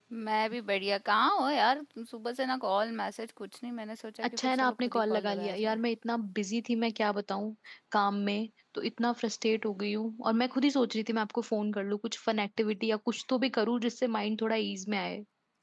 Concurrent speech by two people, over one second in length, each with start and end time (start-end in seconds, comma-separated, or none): 4.2-5.8